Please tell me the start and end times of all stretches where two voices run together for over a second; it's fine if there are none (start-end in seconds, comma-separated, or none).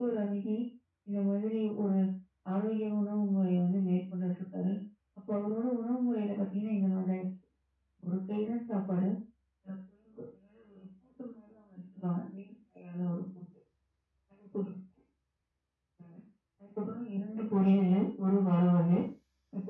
none